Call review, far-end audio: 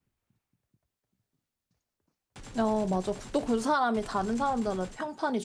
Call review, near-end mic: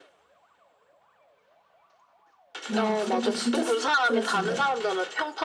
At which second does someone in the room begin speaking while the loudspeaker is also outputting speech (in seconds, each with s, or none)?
2.7 s